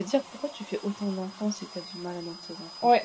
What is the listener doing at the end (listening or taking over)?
taking over